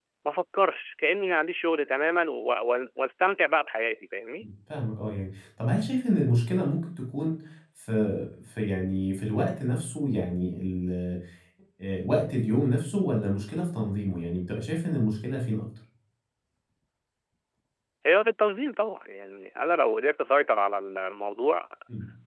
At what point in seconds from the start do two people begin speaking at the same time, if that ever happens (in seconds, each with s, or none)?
none